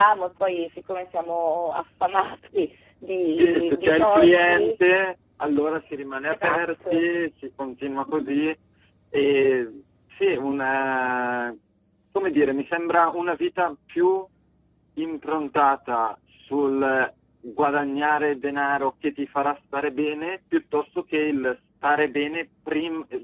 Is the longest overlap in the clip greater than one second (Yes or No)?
Yes